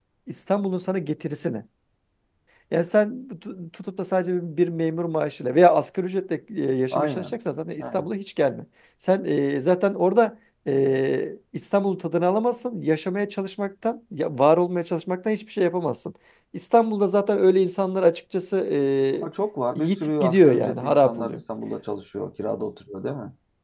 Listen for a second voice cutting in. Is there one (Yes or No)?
Yes